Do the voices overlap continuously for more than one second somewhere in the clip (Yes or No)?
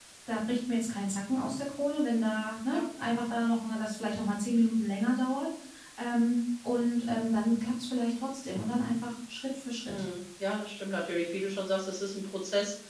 No